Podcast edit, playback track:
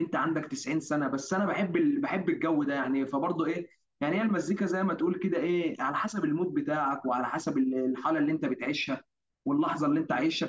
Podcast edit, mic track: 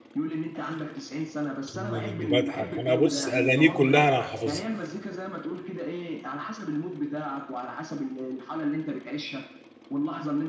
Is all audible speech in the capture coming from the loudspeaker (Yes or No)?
No